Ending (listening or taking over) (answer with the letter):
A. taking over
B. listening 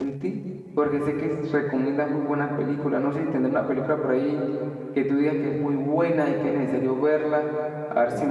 A